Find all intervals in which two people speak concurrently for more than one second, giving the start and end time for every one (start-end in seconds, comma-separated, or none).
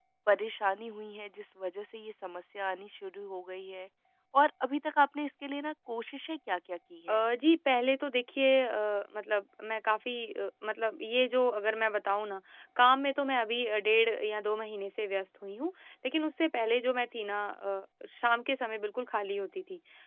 none